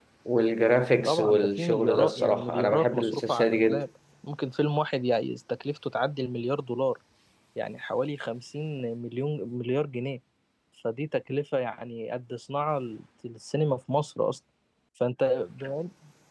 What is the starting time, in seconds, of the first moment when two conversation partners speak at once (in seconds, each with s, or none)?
1.0 s